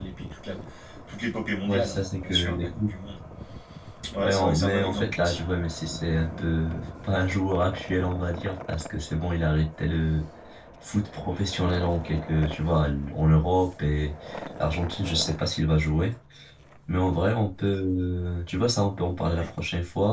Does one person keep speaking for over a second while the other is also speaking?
Yes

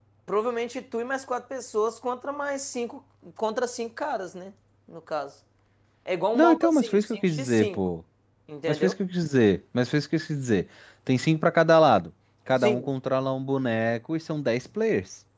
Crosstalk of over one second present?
Yes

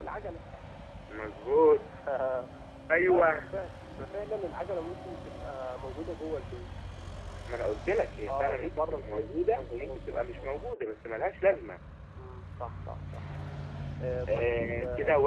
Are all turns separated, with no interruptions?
No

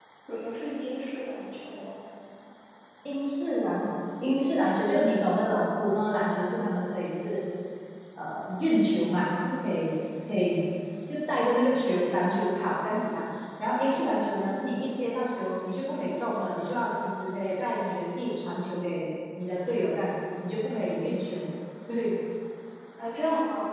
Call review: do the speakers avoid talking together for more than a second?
Yes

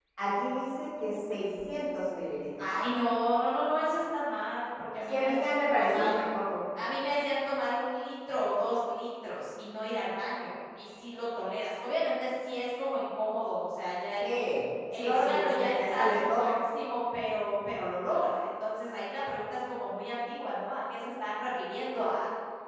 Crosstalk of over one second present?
Yes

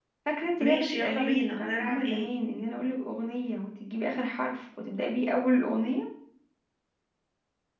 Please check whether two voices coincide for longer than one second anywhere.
Yes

